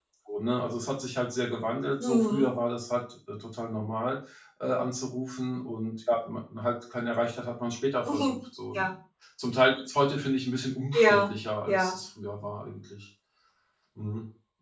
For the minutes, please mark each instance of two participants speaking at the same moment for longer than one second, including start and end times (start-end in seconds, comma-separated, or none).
none